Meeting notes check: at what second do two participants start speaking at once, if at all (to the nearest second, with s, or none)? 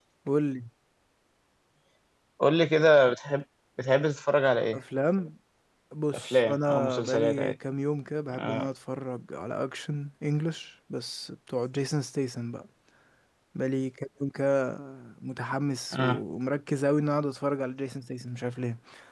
6 s